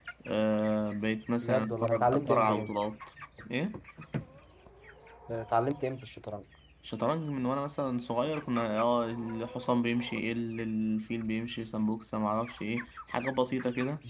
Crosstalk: present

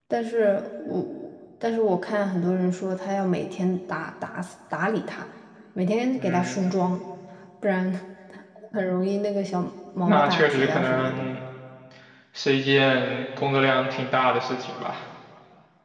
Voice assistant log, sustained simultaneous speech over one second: present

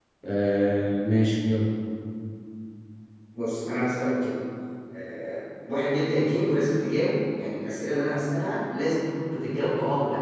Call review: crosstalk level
none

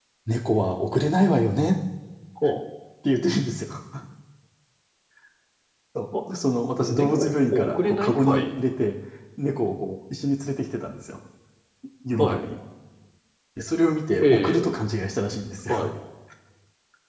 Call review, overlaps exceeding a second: present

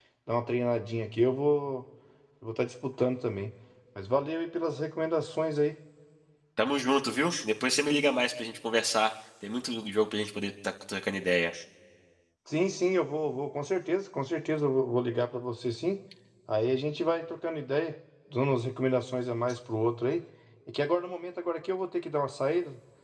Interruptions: none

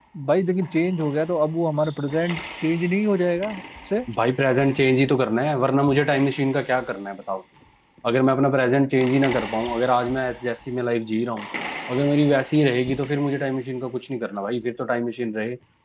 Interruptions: none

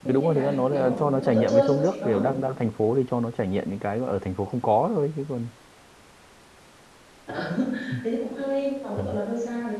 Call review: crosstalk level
present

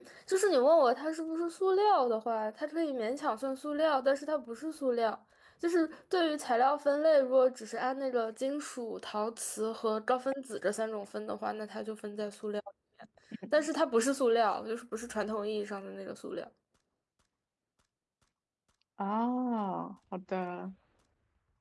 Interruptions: none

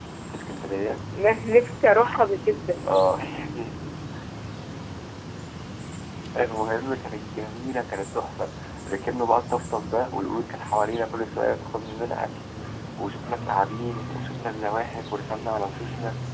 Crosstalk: none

